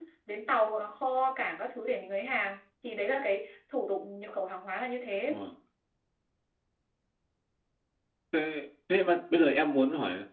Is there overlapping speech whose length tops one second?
No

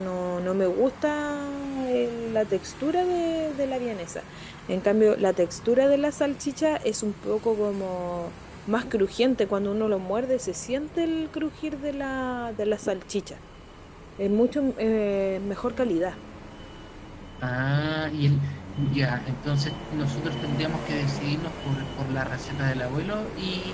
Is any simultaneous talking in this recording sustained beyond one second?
No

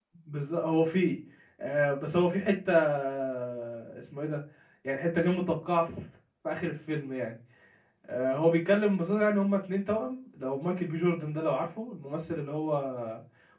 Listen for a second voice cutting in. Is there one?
No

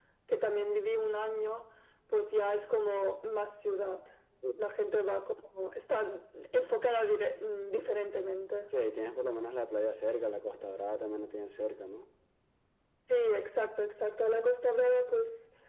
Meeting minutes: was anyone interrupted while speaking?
No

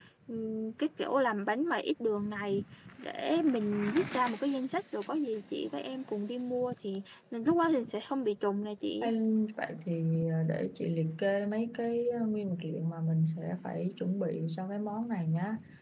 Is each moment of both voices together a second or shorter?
Yes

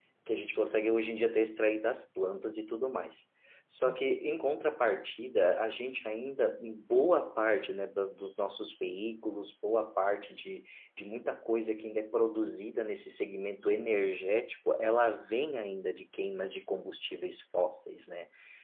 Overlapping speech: No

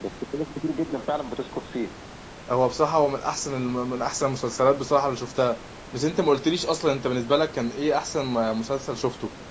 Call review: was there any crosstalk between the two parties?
No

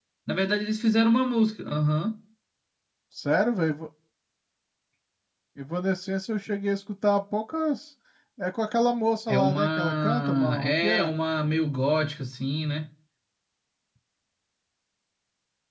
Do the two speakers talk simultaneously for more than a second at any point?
Yes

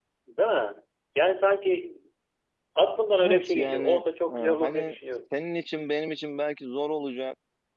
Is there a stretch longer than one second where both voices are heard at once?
Yes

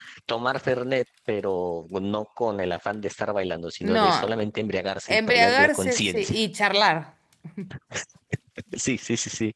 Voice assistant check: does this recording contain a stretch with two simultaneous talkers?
Yes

